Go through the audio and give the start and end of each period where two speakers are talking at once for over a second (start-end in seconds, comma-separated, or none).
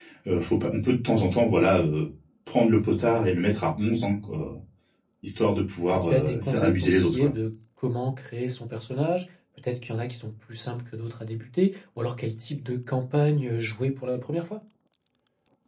6.0-7.3